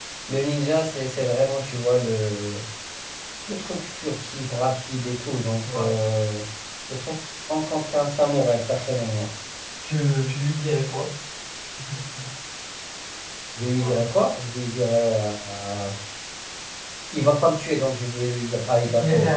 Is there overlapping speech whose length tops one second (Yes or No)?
No